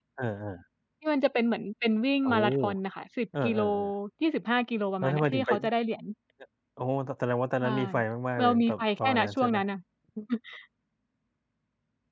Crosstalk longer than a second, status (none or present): present